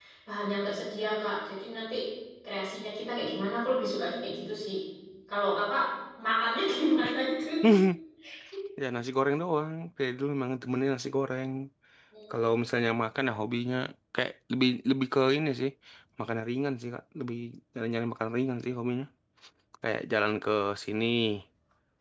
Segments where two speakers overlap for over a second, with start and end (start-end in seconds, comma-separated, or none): none